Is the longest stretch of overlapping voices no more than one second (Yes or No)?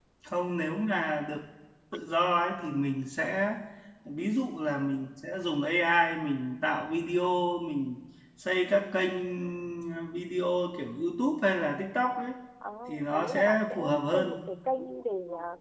No